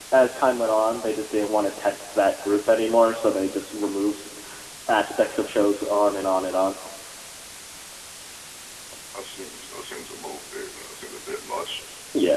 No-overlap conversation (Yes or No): Yes